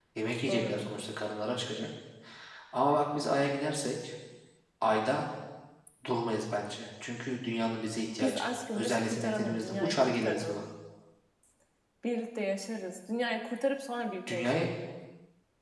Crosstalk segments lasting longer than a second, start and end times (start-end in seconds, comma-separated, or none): 8.2-10.6